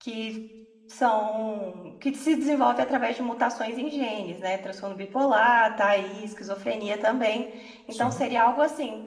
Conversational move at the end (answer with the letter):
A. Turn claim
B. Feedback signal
B